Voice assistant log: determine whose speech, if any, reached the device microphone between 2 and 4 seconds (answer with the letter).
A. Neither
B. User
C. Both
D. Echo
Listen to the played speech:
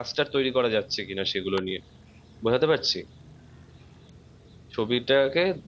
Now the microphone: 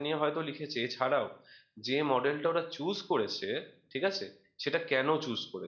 B